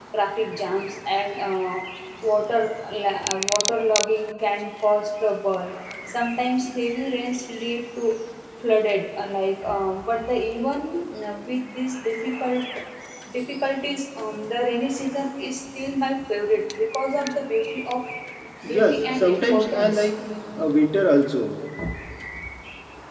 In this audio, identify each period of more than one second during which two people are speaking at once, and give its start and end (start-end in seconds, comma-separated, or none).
18.6-20.1